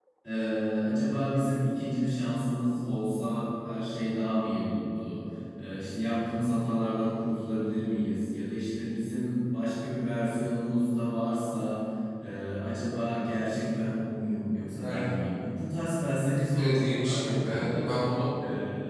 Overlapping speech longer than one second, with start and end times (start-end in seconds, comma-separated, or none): 16.5-17.9